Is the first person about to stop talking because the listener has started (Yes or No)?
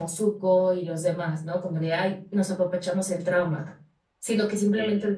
No